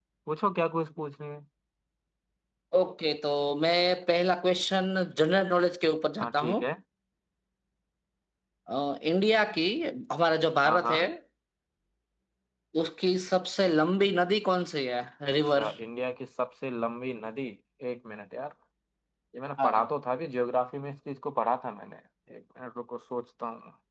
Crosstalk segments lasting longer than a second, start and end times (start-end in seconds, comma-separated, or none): none